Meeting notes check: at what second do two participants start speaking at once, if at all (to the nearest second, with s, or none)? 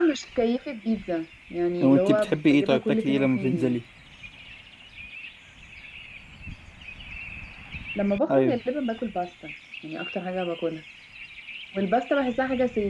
2 s